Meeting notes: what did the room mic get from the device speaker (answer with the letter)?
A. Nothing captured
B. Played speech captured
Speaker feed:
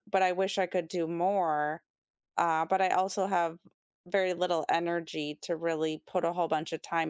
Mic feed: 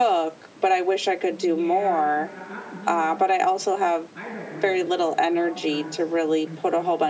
B